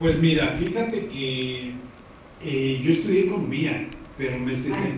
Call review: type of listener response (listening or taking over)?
listening